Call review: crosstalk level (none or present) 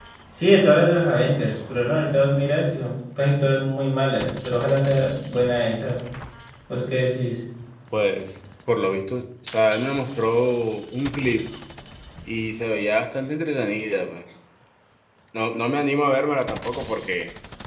none